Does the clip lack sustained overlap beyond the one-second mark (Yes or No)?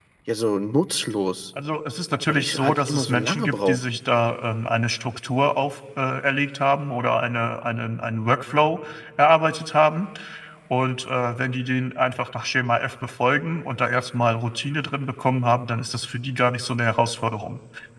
No